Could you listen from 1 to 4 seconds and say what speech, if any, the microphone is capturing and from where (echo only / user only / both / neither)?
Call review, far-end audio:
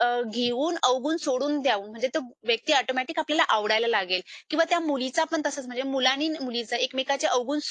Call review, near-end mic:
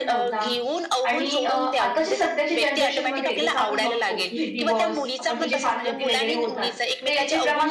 both